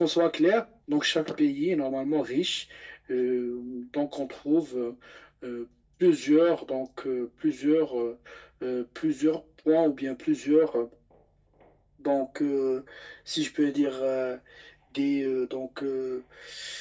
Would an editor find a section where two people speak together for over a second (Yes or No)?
No